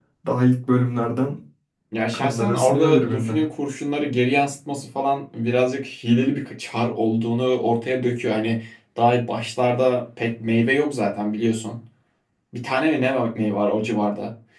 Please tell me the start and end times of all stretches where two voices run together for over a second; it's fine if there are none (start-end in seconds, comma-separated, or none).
2.1-3.4